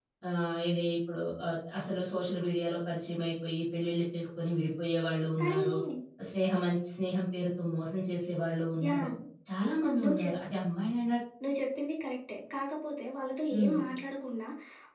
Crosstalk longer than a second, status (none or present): none